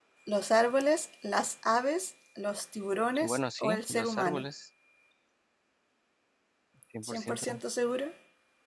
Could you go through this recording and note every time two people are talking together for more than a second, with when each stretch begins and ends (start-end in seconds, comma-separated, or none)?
3.2-4.5